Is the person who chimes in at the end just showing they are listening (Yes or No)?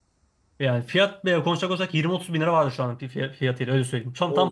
No